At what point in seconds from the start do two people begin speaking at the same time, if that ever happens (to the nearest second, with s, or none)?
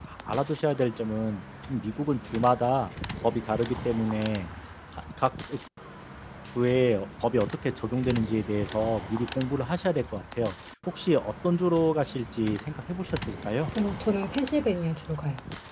none